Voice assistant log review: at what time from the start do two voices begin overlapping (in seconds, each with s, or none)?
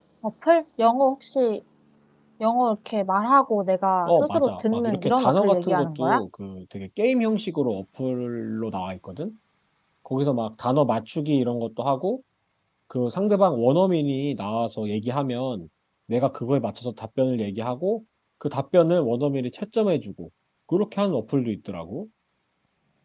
4.1 s